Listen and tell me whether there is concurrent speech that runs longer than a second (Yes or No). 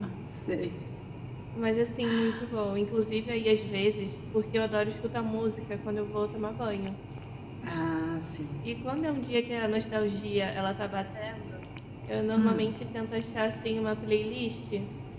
No